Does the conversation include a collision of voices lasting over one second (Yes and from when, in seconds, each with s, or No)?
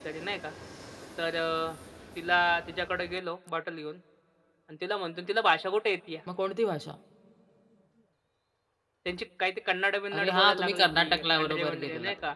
Yes, from 10.1 s